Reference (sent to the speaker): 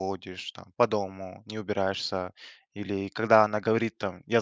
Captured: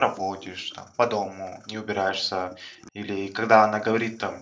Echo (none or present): present